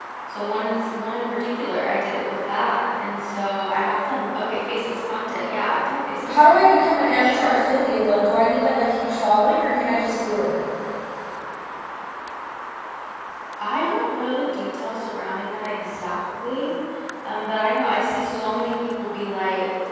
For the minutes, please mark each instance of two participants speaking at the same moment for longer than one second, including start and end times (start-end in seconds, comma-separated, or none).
6.3-7.7